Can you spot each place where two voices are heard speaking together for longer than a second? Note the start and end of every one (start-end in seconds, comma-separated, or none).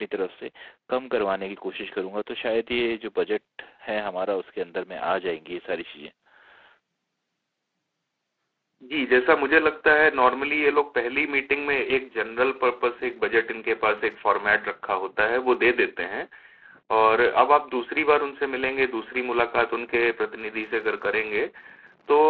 none